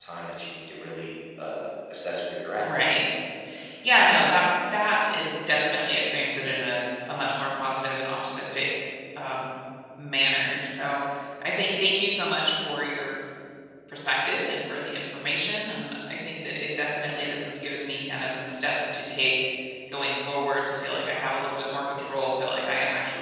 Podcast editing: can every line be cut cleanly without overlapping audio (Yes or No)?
Yes